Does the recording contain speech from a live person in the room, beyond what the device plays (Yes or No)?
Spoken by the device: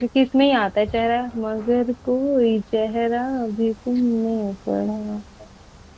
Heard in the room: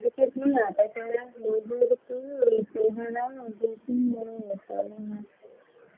No